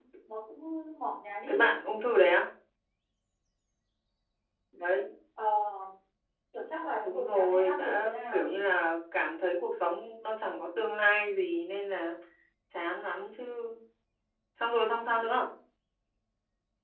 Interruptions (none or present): present